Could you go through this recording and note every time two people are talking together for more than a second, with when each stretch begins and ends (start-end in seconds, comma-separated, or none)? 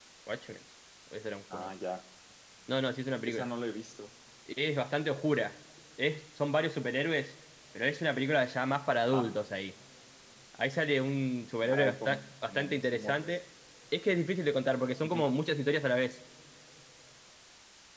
11.8-13.4